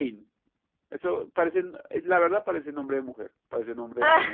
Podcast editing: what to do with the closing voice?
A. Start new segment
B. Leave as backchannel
B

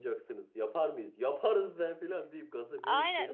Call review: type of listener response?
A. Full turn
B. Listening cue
A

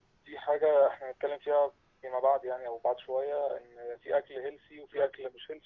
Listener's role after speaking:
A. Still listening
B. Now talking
A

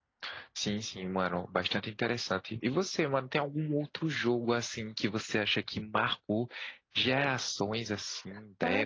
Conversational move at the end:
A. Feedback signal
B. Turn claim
B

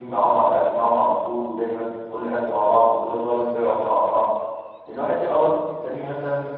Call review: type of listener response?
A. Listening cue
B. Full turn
A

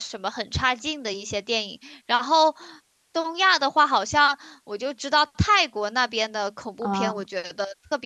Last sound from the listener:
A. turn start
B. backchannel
B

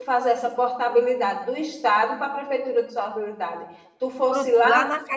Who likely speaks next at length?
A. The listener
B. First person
A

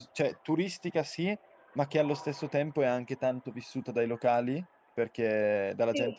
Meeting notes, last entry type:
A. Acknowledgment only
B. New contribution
A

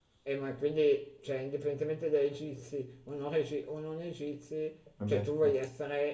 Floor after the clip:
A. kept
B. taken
A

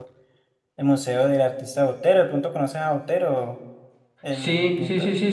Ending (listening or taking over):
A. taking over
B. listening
A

